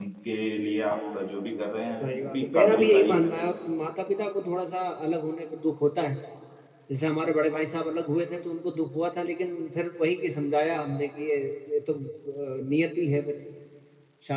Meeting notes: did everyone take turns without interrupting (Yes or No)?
No